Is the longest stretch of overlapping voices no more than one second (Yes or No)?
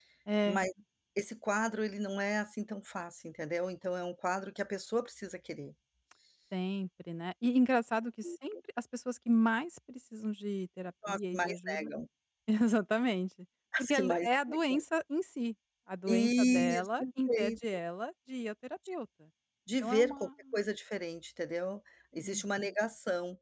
No